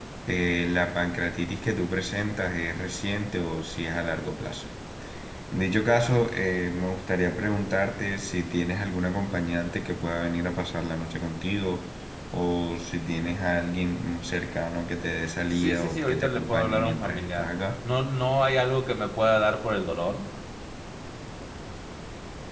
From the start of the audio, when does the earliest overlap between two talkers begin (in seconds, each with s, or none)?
15.5 s